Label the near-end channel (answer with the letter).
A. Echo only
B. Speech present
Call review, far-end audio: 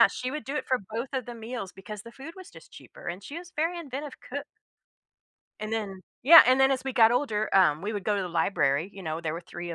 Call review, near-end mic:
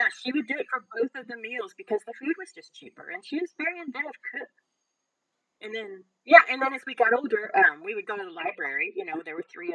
A